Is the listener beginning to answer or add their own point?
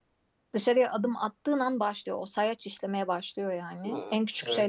No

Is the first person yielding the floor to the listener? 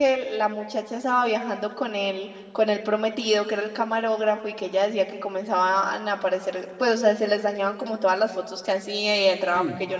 Yes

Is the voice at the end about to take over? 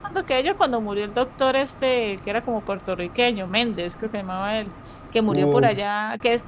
No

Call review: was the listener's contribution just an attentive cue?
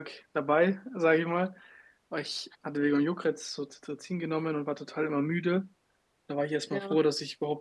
Yes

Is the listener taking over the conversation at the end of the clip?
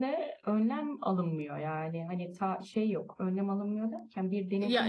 No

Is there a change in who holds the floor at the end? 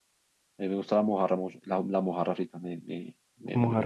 No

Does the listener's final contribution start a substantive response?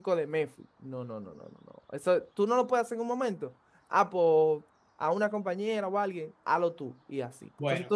Yes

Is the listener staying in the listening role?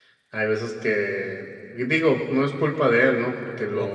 Yes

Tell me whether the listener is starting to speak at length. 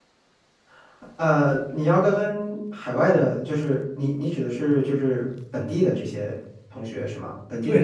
Yes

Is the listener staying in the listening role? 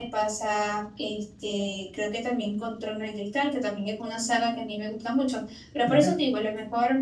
Yes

